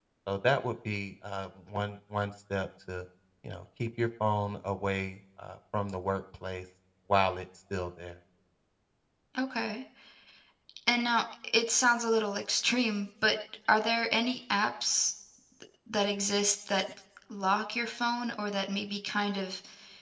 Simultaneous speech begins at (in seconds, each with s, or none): none